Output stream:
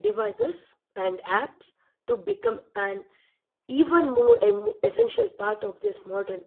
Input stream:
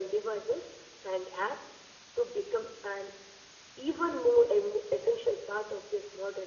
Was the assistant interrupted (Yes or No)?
No